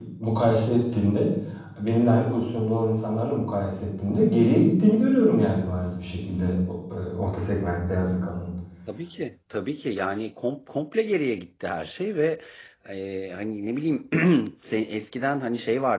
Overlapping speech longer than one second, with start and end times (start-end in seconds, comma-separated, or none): none